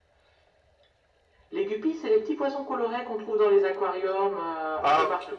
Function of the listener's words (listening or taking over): taking over